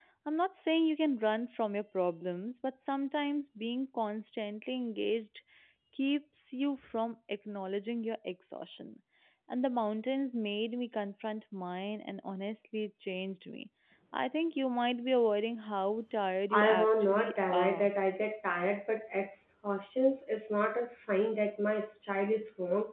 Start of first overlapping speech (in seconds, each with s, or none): 16.5 s